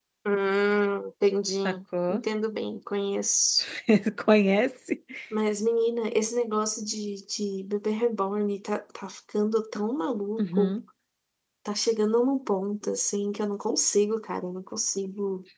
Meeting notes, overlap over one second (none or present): none